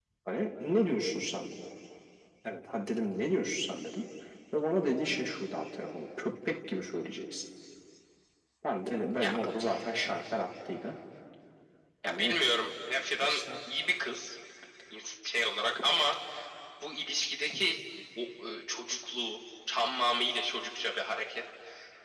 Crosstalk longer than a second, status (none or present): none